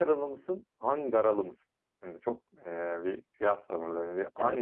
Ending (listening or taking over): taking over